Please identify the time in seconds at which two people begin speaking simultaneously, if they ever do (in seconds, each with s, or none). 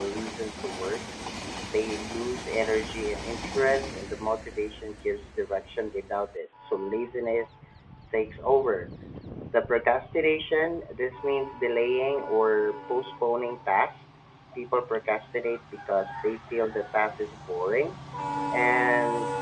none